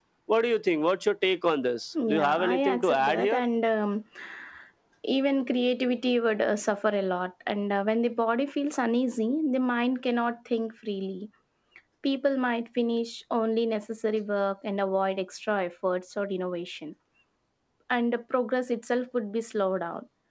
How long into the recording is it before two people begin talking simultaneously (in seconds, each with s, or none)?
2.0 s